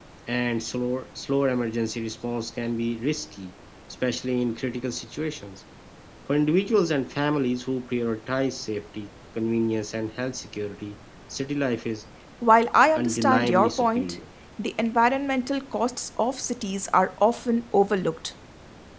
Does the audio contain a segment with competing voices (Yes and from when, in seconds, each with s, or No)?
Yes, from 12.9 s